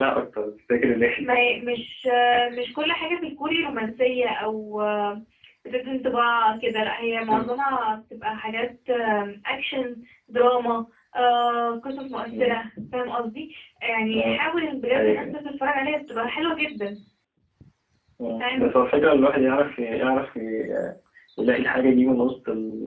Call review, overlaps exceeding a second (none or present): none